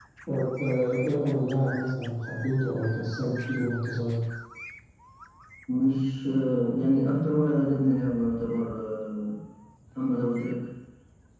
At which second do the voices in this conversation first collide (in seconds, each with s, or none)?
none